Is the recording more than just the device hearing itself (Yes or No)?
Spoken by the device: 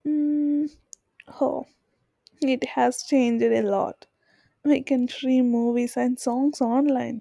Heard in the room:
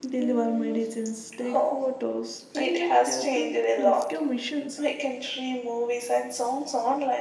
Yes